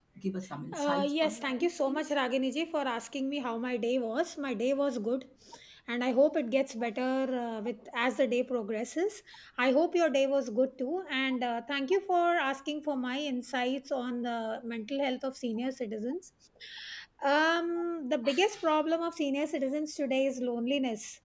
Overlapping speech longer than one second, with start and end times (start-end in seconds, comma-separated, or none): 0.8-2.1